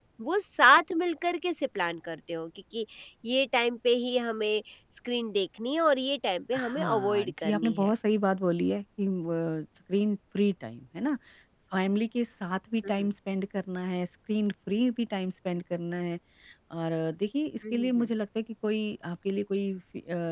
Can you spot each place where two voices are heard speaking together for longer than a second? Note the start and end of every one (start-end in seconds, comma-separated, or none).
6.5-7.9